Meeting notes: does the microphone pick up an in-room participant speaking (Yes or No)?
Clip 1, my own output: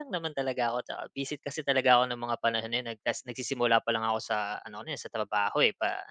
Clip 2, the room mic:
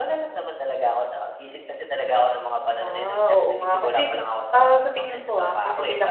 Yes